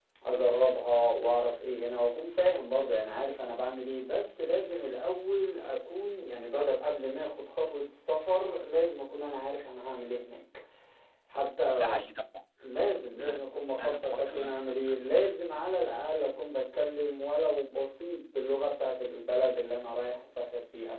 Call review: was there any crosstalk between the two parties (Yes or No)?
Yes